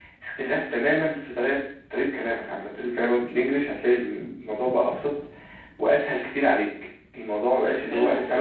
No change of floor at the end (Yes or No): No